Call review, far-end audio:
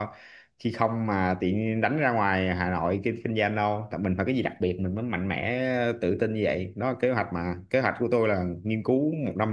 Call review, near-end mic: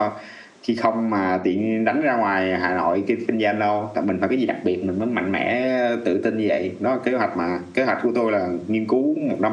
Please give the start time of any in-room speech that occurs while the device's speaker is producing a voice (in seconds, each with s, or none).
none